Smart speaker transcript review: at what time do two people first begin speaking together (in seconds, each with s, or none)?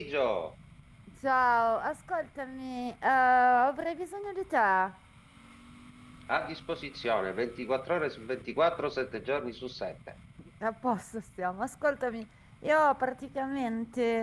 none